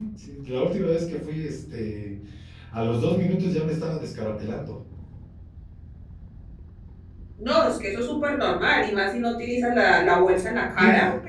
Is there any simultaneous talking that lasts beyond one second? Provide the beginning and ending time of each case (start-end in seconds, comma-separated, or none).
none